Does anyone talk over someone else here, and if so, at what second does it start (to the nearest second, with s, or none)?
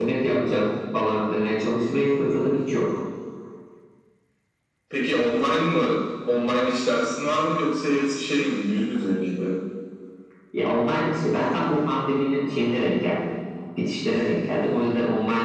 none